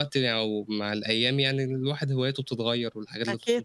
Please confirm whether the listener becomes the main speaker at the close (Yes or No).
Yes